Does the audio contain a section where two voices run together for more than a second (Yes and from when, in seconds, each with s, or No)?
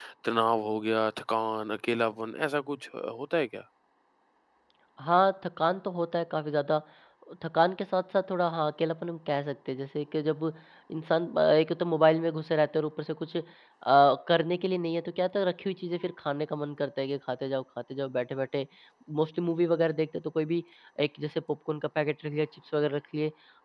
No